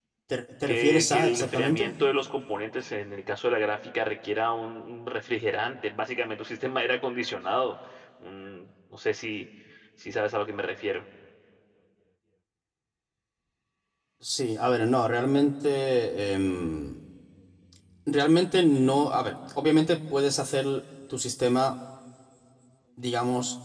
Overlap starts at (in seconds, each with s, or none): 0.7 s